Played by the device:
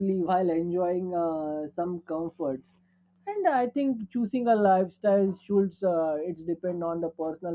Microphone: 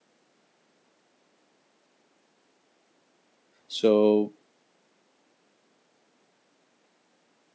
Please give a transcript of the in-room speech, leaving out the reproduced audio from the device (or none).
so